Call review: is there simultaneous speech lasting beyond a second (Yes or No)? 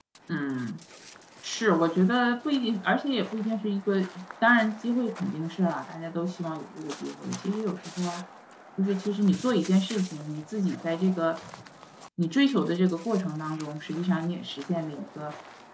No